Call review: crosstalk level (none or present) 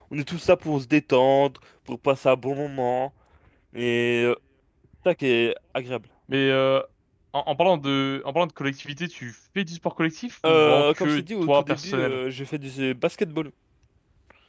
present